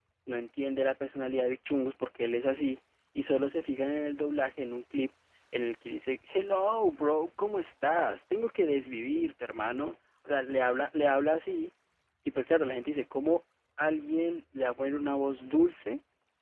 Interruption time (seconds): none

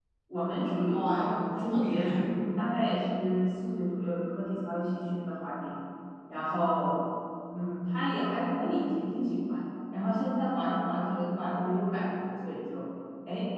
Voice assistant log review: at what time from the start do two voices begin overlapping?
0.8 s

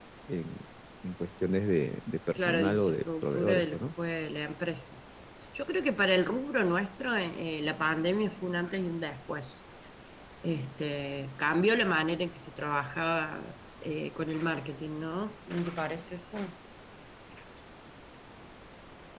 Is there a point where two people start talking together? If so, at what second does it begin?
2.4 s

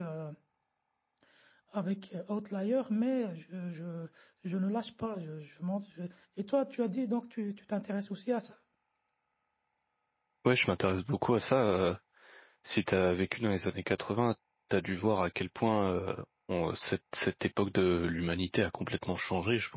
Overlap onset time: none

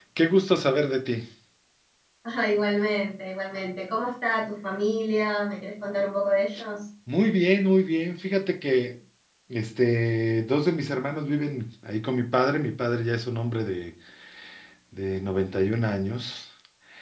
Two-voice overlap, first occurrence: none

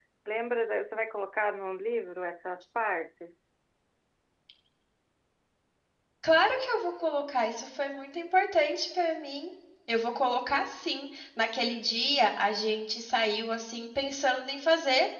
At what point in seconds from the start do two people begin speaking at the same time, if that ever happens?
none

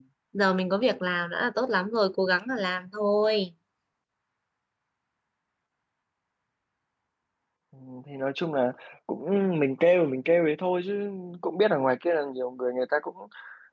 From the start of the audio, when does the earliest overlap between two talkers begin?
none

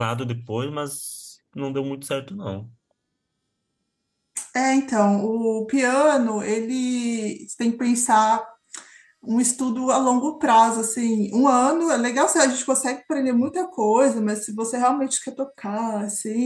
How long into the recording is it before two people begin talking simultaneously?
none

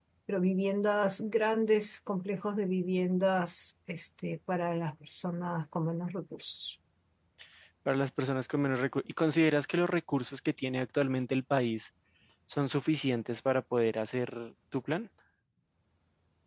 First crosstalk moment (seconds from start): none

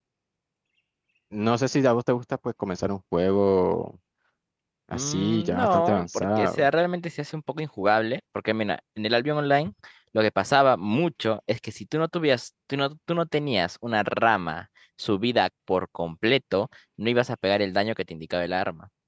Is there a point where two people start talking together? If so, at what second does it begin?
4.9 s

